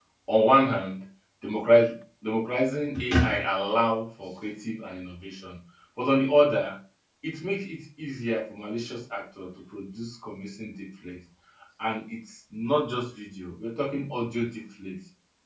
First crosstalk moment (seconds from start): none

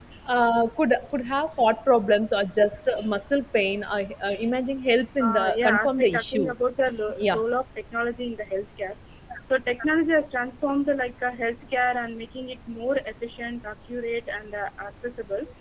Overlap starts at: 5.2 s

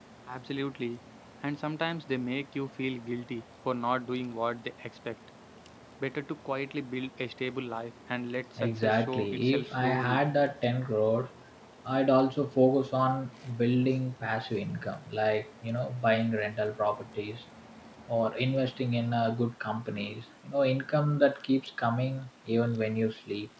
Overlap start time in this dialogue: 8.6 s

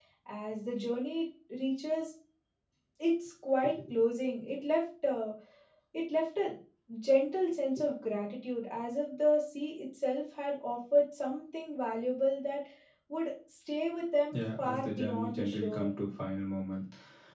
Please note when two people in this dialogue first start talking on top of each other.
14.3 s

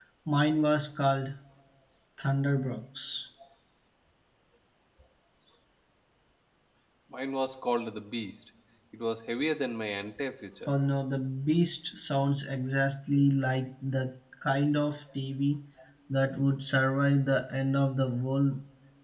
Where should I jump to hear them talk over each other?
none

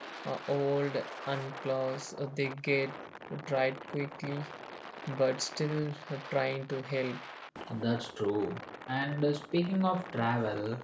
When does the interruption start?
none

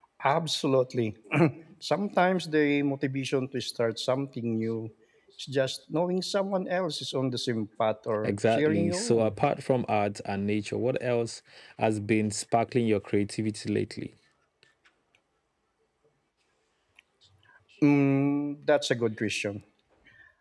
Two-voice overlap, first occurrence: 8.2 s

